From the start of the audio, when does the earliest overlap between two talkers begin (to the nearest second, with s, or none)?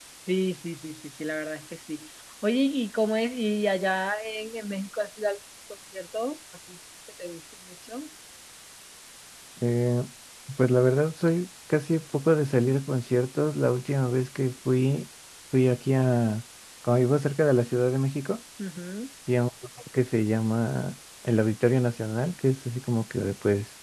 none